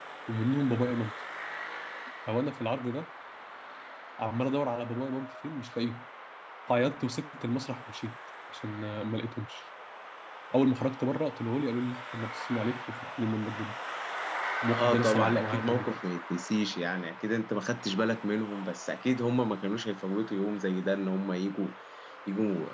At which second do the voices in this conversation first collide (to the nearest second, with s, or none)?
15 s